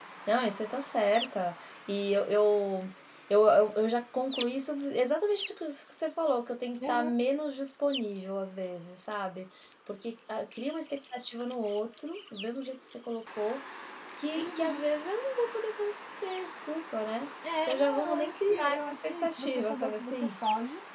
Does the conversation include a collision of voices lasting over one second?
Yes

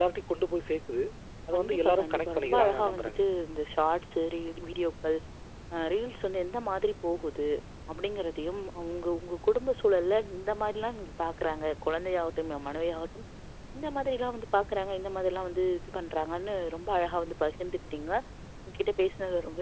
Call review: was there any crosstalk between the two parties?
Yes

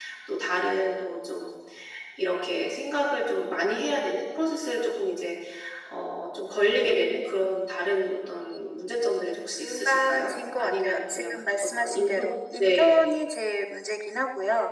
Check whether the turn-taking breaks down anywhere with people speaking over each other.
Yes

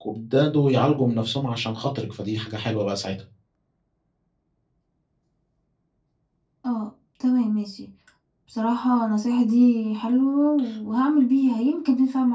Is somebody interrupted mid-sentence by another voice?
No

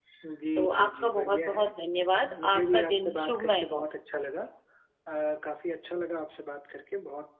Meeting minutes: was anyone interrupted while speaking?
Yes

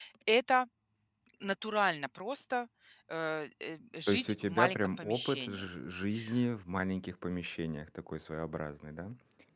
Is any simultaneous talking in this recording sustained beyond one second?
Yes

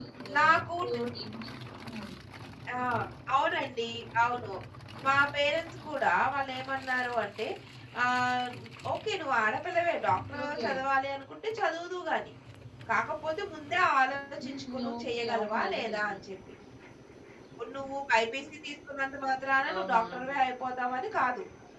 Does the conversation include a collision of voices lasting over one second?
Yes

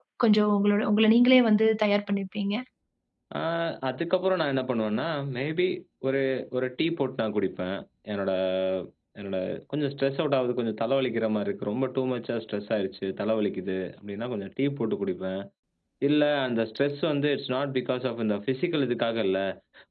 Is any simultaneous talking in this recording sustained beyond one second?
No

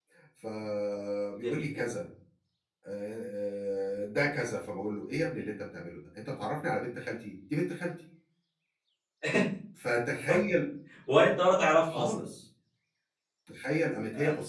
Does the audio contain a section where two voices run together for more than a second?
No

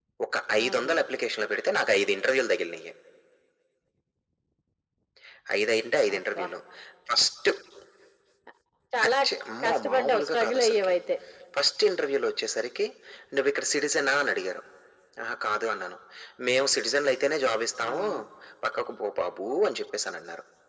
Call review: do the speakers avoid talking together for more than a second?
No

